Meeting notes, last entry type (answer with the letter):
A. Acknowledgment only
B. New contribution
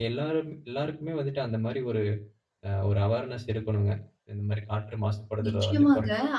B